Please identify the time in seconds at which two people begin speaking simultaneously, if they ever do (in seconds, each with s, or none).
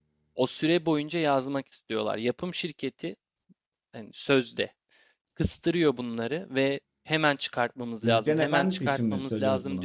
8.0 s